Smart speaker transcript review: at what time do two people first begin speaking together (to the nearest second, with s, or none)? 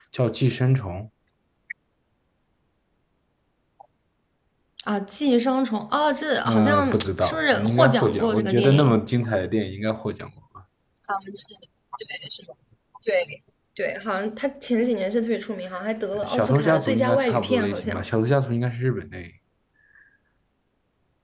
6 s